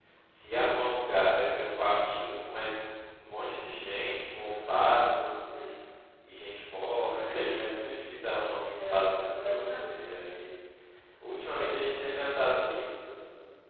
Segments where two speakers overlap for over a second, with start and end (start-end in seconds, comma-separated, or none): 8.9-10.2